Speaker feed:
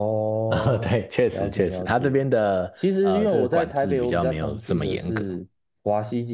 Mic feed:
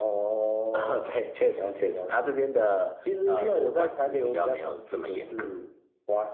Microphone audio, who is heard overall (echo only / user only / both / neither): echo only